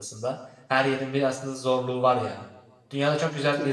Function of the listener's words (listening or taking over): listening